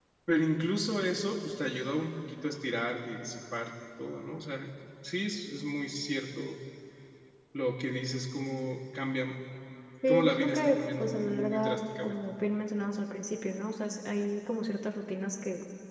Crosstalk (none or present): present